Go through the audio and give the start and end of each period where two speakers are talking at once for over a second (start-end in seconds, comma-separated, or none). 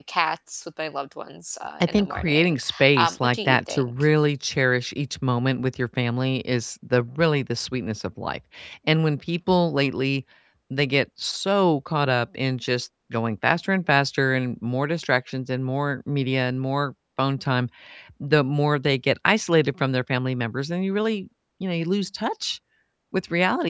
1.8-3.9